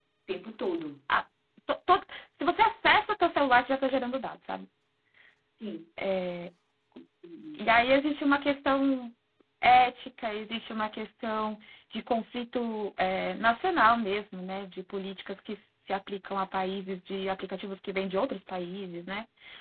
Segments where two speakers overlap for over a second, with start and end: none

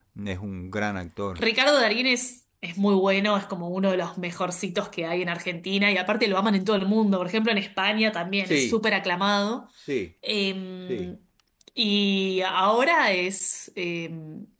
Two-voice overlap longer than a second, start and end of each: none

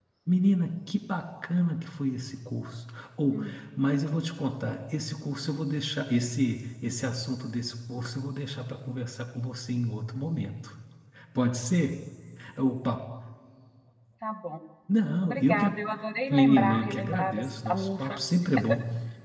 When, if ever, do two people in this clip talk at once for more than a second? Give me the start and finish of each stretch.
16.3-18.2

